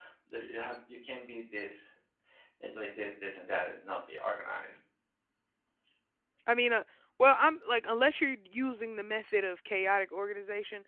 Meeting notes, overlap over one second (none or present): none